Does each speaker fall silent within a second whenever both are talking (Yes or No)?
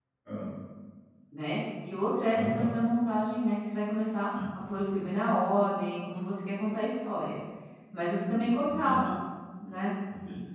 Yes